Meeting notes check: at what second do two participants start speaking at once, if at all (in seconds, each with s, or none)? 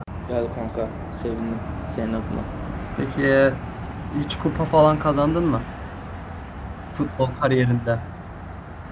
none